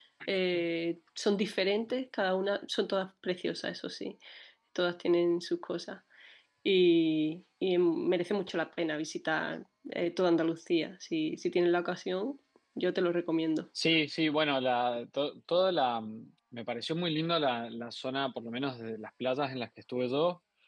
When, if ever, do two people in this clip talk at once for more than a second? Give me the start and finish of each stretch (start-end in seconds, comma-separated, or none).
none